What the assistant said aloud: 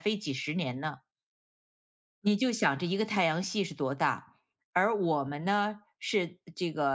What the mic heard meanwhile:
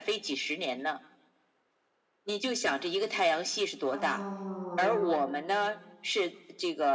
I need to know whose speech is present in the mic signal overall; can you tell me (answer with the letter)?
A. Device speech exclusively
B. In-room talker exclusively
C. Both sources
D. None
C